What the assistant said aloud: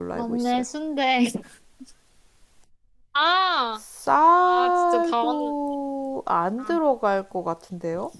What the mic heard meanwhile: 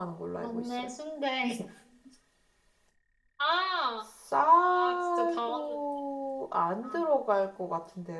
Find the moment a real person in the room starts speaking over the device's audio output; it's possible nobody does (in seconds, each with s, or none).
none